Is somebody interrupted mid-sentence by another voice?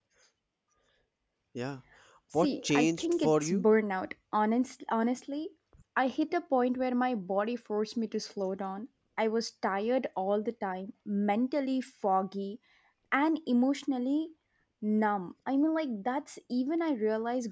Yes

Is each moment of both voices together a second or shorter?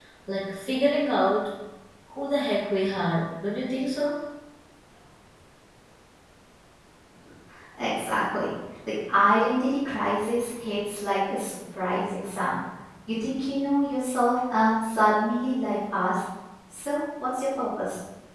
Yes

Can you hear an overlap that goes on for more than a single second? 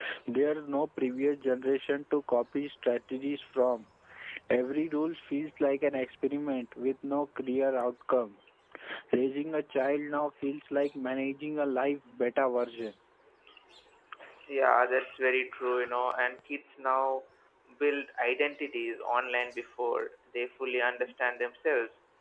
No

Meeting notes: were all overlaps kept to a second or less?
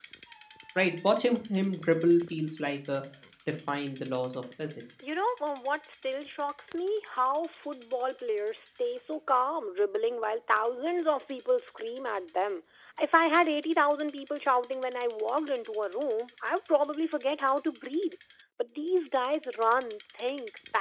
Yes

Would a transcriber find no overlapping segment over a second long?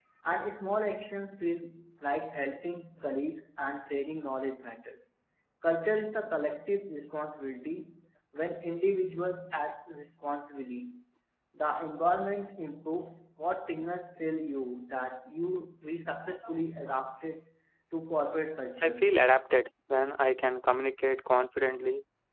Yes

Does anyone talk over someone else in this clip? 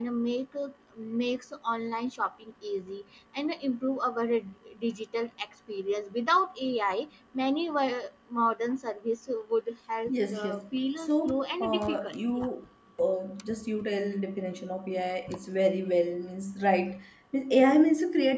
Yes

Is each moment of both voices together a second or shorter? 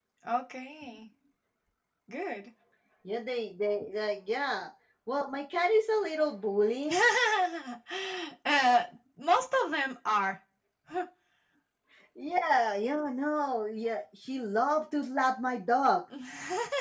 Yes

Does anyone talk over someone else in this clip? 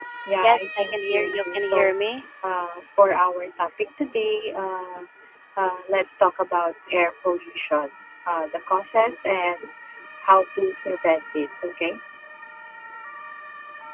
Yes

